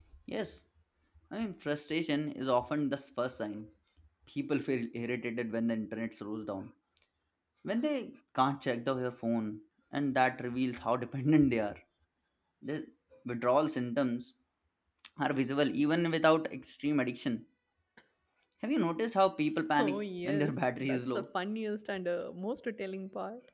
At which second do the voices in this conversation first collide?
19.8 s

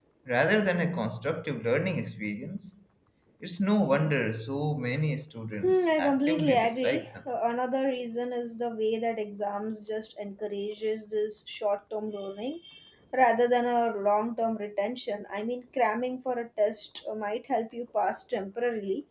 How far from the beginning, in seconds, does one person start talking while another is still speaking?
5.6 s

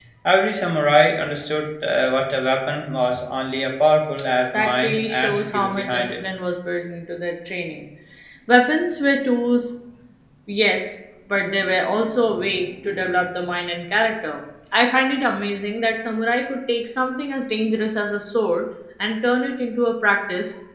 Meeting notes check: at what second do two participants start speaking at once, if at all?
4.5 s

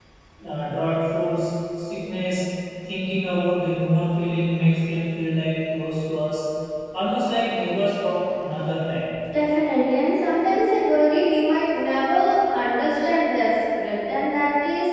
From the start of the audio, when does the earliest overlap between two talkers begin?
none

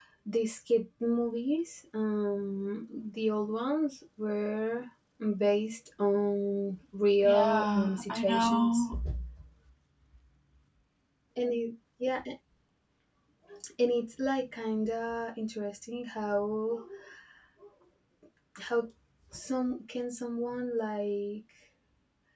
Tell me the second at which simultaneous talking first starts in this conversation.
7.2 s

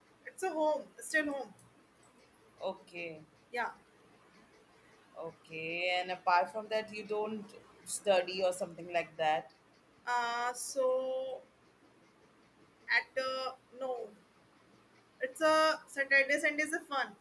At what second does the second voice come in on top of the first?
none

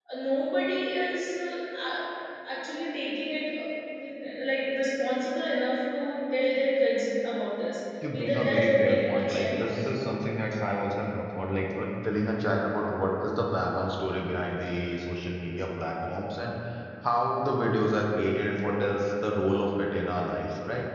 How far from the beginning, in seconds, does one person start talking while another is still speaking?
8.0 s

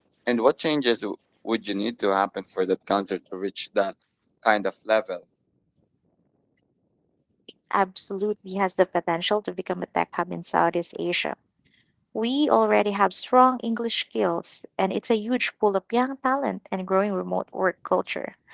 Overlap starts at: none

